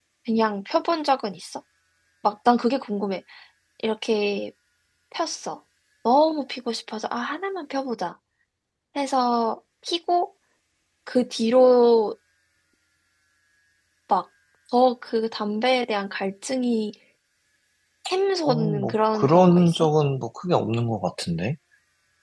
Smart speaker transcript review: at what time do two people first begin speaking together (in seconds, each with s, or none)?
18.4 s